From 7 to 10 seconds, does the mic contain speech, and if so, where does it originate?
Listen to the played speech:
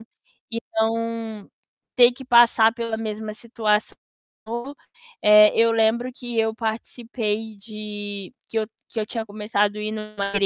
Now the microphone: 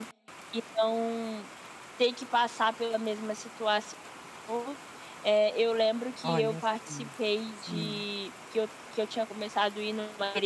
both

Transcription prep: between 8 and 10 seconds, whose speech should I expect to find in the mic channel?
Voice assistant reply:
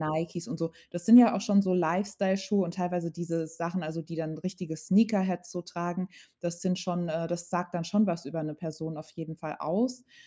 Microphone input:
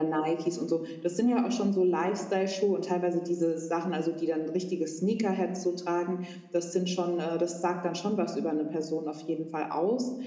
echo only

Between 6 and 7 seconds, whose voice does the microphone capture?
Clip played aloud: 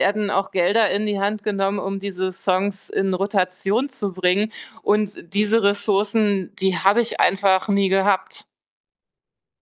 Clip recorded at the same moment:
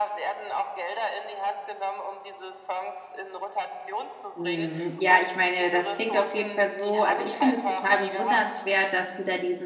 both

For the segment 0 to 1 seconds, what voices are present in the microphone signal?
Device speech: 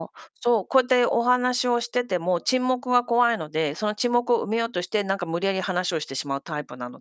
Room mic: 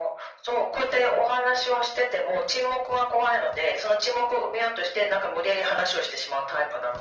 echo only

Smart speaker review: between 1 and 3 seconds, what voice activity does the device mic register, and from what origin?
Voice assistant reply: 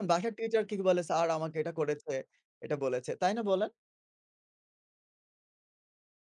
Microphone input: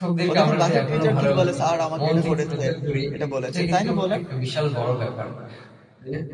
both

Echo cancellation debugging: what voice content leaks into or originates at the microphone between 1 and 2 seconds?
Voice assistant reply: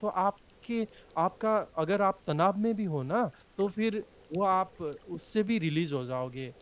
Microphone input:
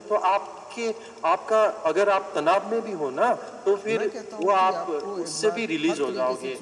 echo only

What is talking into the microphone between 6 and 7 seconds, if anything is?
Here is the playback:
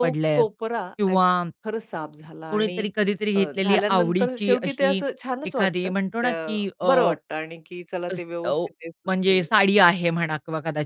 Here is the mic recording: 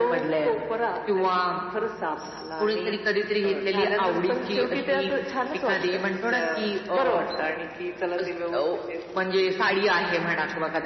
echo only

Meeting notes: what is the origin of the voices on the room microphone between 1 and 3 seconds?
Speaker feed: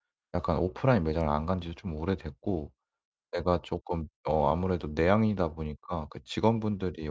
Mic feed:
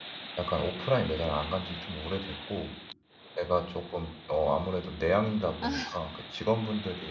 echo only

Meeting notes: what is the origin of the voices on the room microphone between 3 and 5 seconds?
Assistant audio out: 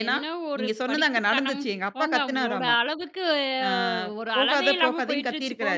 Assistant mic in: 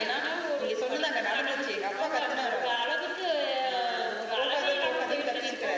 echo only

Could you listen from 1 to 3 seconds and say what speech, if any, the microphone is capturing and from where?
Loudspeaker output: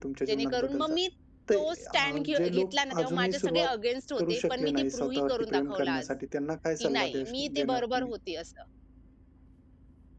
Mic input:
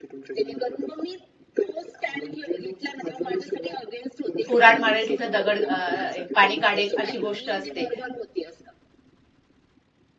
echo only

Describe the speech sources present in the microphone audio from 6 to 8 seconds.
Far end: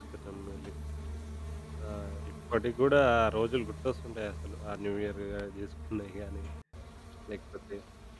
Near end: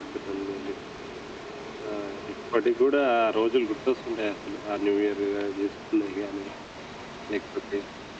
echo only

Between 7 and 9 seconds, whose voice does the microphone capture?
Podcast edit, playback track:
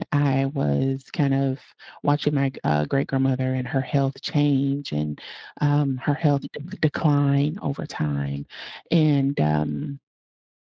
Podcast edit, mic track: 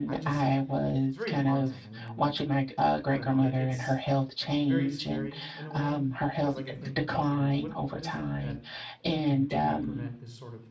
both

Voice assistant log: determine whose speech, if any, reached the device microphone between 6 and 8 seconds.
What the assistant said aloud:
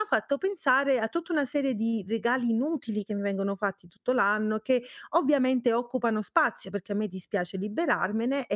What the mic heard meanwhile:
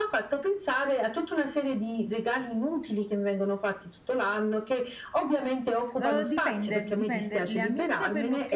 both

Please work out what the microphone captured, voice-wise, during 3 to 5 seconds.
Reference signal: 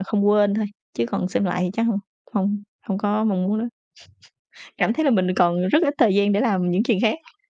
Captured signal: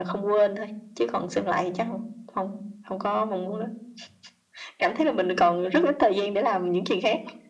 echo only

